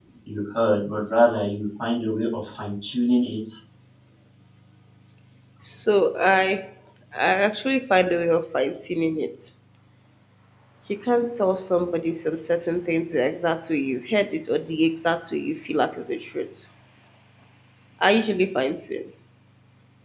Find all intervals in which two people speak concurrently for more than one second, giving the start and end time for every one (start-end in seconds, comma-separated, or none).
none